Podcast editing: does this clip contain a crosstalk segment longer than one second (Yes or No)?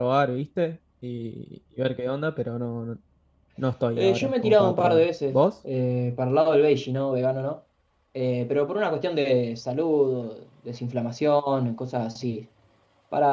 Yes